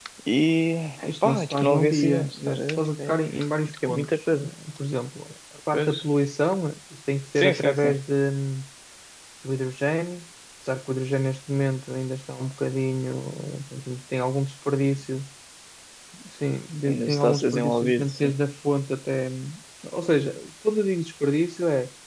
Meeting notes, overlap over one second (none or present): present